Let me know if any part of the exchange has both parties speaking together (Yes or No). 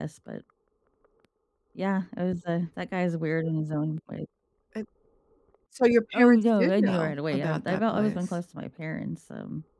Yes